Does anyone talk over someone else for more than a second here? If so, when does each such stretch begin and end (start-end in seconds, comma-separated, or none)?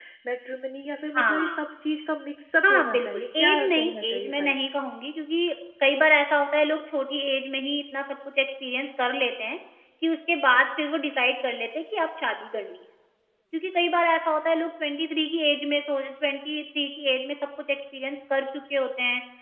2.6-4.6